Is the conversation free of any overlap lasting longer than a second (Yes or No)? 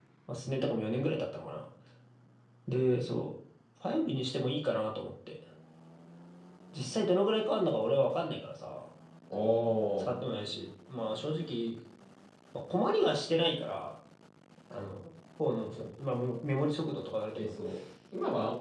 Yes